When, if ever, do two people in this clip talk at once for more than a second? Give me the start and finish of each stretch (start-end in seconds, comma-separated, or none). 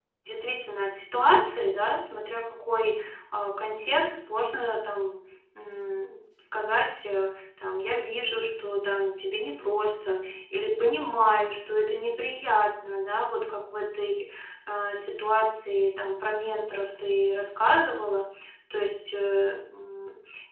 none